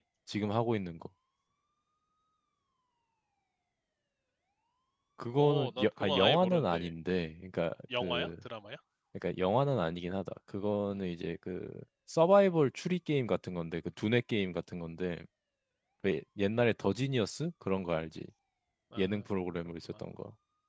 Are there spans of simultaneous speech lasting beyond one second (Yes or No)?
Yes